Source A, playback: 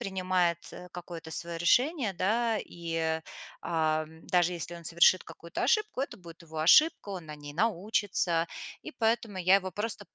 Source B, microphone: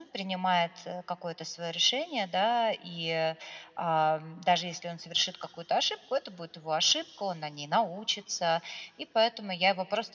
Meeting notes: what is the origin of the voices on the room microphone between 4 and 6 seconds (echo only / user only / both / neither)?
echo only